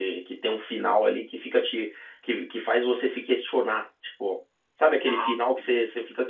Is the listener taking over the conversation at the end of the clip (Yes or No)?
No